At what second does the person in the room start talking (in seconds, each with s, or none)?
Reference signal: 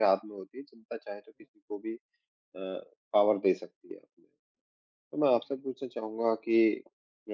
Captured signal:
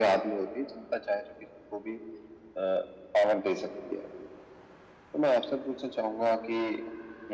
none